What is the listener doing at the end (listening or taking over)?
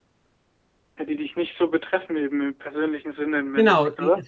taking over